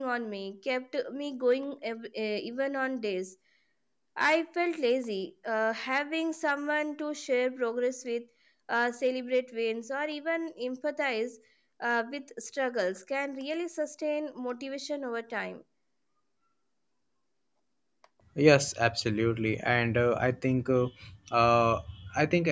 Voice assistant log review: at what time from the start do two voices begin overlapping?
none

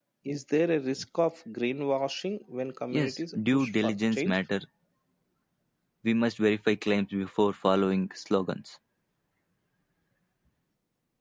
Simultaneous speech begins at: 2.9 s

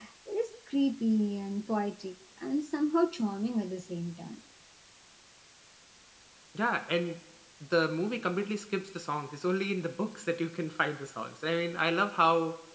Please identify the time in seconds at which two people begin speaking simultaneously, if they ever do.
none

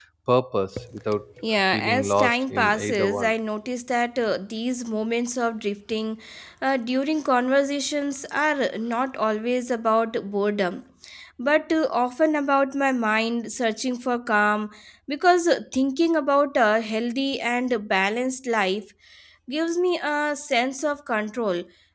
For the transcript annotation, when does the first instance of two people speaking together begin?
1.7 s

